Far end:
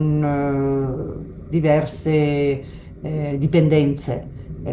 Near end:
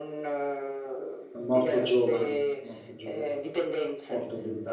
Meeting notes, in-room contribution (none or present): present